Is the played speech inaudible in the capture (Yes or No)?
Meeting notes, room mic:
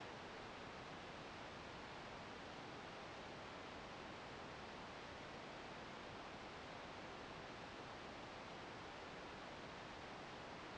Yes